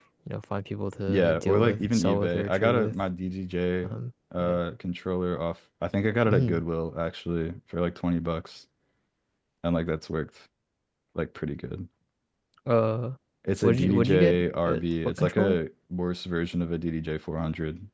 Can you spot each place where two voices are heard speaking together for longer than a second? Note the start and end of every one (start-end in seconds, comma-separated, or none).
1.1-3.0, 13.6-15.6